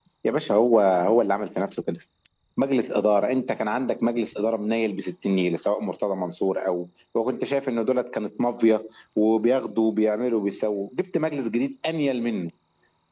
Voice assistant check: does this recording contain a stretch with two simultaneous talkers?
No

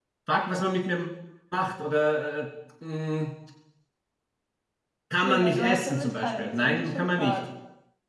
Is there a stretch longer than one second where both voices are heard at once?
Yes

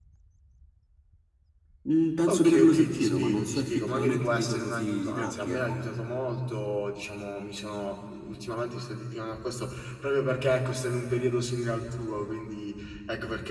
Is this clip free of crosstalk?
No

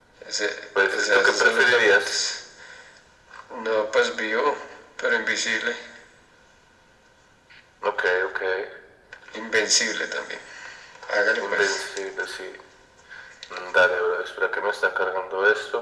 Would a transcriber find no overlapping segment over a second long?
No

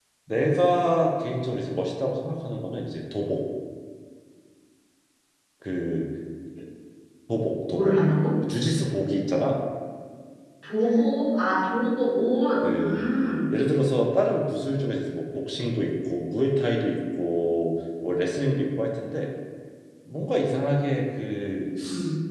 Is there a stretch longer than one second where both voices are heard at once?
No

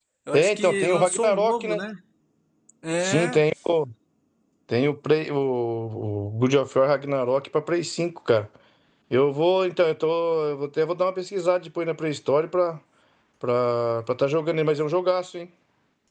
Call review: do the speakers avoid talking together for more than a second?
No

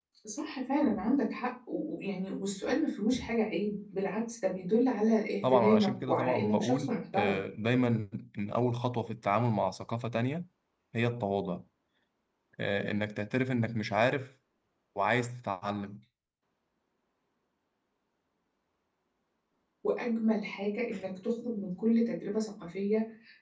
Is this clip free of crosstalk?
No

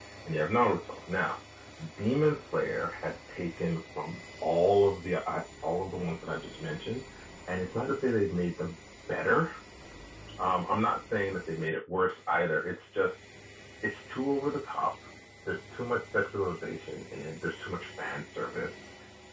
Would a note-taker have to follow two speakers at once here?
No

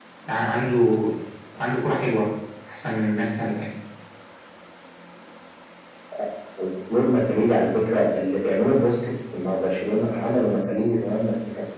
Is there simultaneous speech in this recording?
No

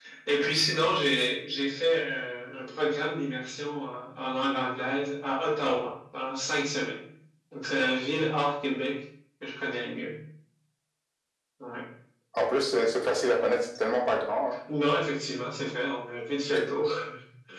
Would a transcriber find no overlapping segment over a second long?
Yes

